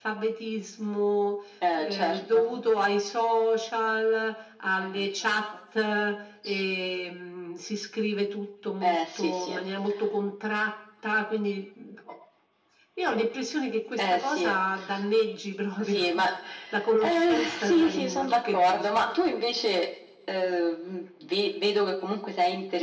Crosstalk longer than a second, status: present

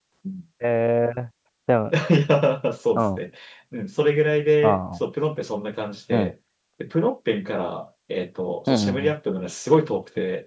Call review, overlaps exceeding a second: none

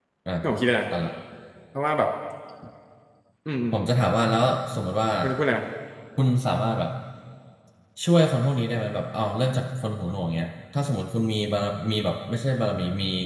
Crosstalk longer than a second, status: none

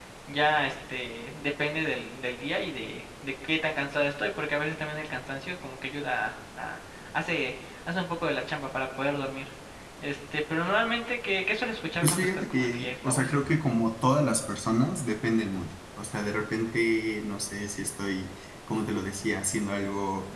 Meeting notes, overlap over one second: present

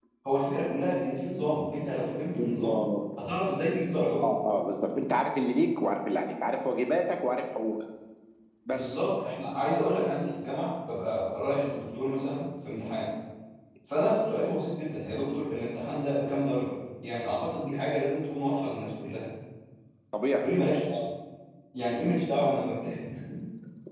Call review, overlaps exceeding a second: none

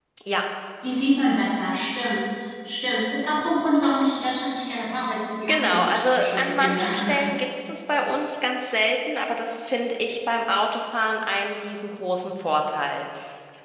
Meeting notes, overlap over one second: present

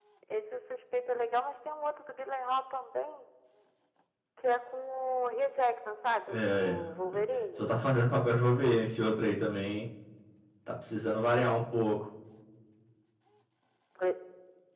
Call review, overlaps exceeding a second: none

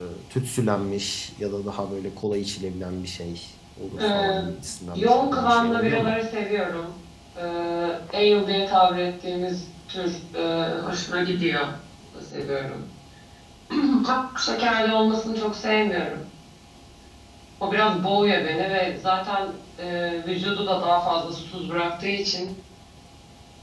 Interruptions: present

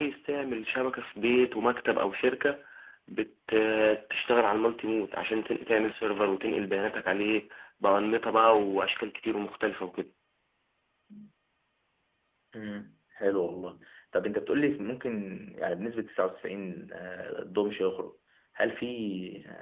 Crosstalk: none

